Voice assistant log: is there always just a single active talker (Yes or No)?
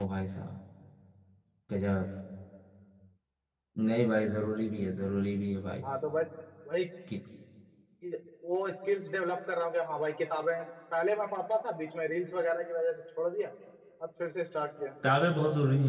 Yes